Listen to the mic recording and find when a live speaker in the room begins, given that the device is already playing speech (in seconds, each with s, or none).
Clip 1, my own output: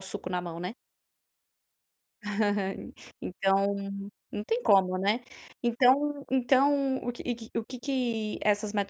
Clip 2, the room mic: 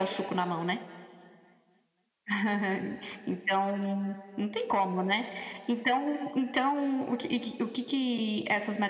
none